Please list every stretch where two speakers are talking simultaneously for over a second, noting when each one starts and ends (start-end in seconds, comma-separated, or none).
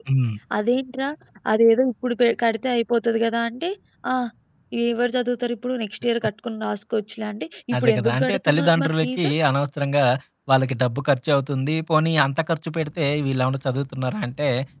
7.8-9.3